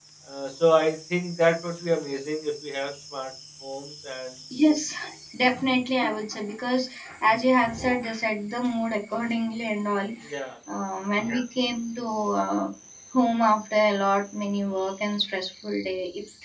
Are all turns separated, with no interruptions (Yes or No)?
Yes